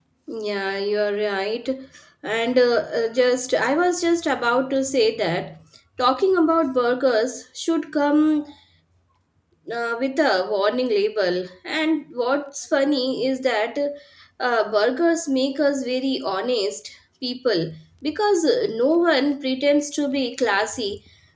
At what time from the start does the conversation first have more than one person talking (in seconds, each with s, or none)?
none